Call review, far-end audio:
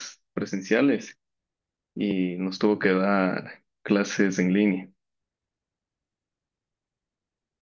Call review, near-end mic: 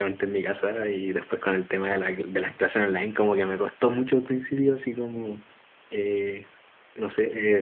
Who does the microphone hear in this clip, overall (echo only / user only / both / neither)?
user only